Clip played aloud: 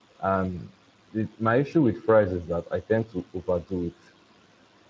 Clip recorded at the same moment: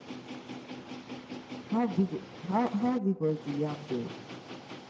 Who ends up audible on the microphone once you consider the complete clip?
user only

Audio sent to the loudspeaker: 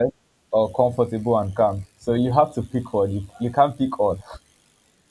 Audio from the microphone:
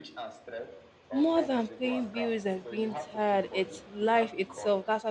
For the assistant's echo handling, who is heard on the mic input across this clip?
both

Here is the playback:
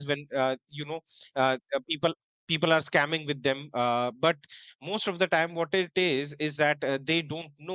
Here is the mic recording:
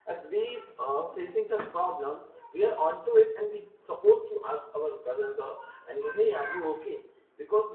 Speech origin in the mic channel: user only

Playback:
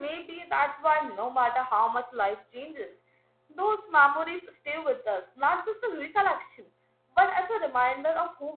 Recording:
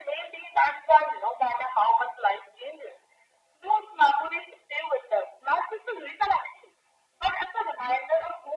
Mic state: echo only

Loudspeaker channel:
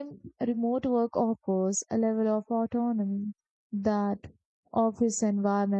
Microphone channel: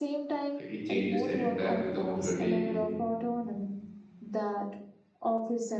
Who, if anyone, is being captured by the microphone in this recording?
both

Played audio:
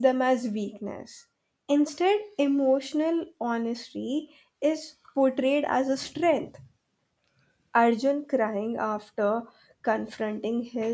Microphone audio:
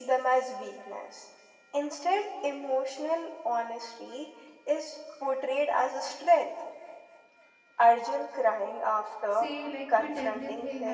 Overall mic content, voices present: both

